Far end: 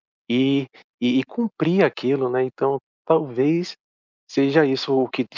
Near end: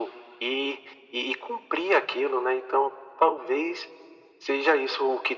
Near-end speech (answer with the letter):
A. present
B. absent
B